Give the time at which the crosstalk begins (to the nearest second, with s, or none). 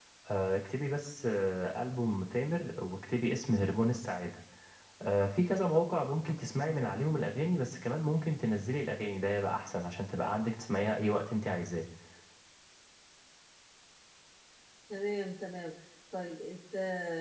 none